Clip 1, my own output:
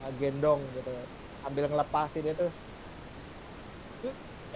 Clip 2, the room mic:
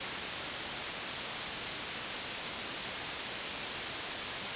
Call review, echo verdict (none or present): none